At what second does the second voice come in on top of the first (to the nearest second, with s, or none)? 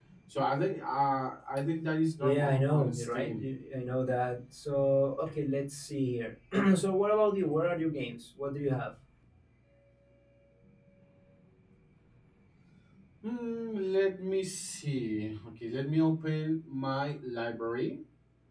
2 s